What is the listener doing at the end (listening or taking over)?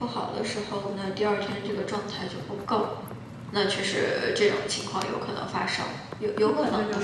taking over